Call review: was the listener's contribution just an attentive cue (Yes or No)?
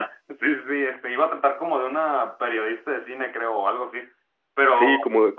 No